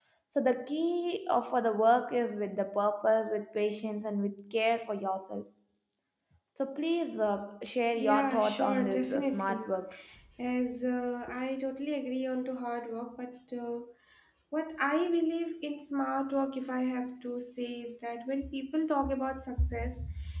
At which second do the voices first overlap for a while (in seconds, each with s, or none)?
7.9 s